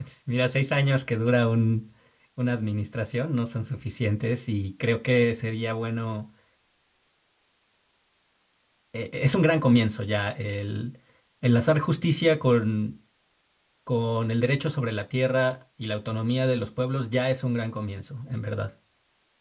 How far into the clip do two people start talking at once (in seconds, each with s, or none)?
none